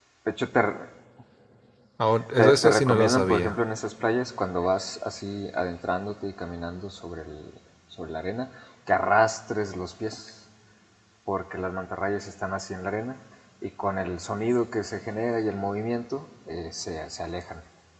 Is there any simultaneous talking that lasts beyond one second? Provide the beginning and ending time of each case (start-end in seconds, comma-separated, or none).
2.4-3.6